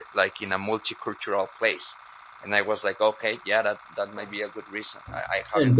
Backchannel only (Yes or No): No